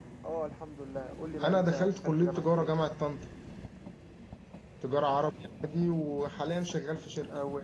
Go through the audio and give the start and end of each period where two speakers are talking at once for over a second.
1.4-2.7

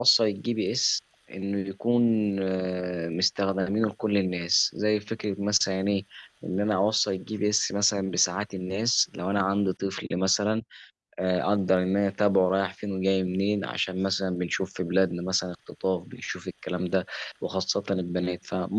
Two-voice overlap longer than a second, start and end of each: none

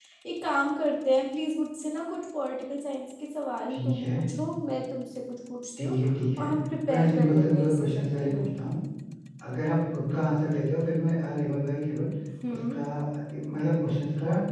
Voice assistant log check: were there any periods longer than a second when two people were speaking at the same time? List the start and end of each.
6.9-8.5

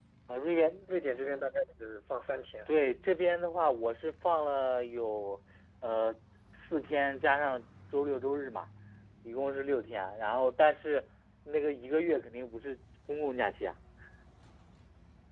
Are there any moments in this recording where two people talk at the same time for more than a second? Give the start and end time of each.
none

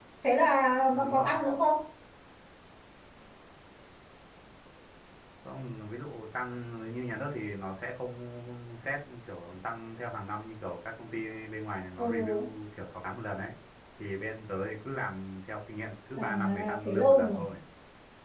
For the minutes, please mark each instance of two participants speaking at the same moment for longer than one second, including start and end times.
16.2-17.4

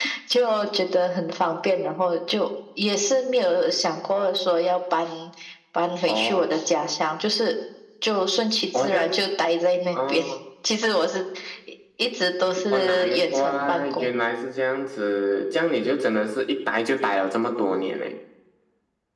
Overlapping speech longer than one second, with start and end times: 12.7-14.1

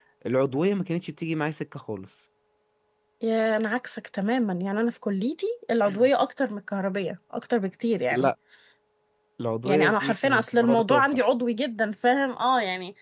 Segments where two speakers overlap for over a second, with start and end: 9.7-11.0

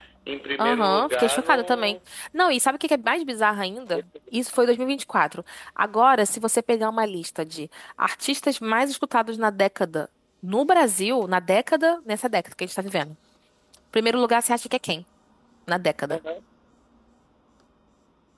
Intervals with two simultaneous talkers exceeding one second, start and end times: 0.6-2.0

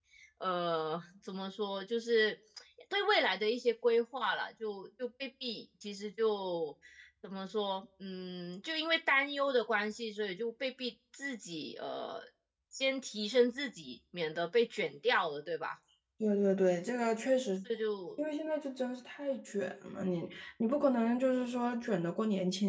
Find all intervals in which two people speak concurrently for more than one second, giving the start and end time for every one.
none

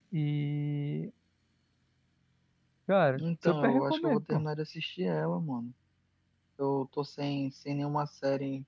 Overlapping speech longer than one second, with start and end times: 3.1-4.4

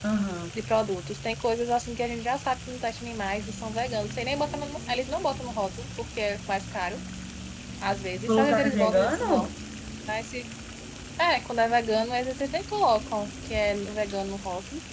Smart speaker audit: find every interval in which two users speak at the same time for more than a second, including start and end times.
8.3-9.5

